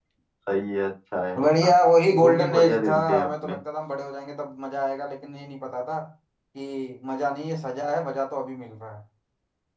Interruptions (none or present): present